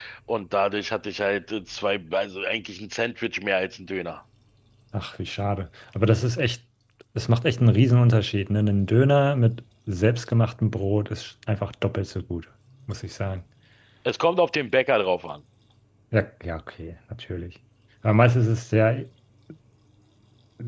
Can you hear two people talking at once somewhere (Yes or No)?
No